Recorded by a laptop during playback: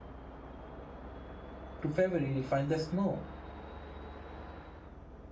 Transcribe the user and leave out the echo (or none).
to february you'll find the snow